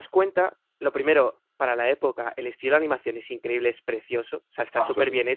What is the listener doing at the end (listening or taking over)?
listening